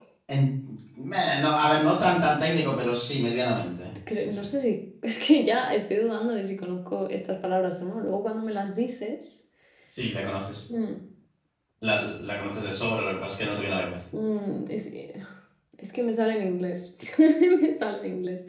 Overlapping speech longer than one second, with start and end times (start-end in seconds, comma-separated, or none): none